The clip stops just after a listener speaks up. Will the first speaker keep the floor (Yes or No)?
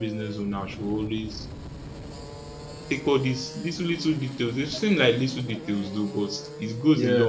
Yes